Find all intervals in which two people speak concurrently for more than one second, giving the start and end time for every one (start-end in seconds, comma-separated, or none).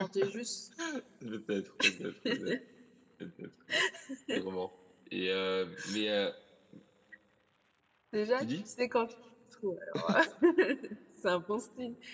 none